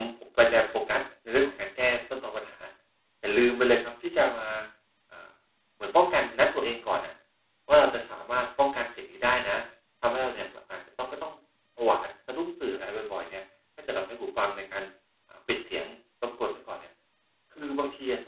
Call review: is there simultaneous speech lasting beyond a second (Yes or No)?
No